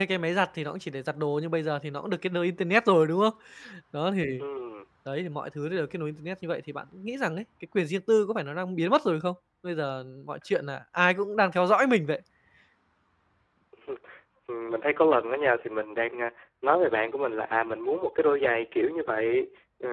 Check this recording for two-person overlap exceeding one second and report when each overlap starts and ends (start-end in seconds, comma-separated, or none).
none